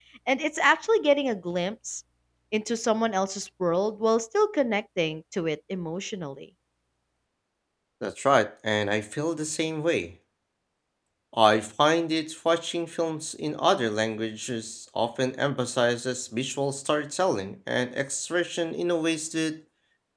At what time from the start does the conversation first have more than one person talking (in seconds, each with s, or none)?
none